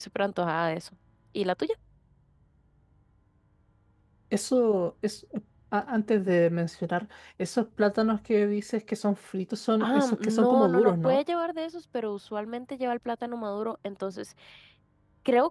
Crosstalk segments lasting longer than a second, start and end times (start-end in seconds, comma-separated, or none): 9.8-11.2